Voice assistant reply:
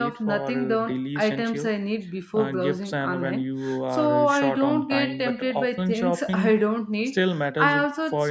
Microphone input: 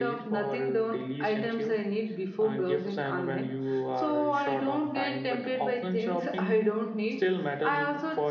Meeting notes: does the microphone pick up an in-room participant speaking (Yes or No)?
No